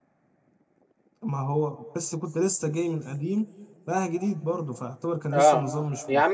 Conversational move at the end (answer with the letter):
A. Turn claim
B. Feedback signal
A